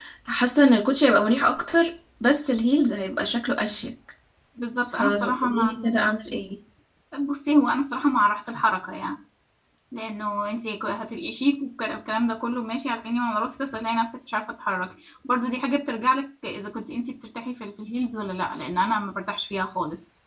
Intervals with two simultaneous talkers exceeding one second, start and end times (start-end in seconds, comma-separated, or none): 4.9-6.1